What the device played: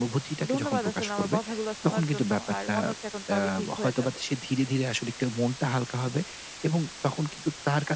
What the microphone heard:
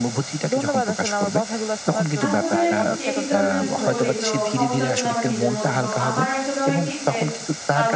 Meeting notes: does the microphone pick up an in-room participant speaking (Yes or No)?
Yes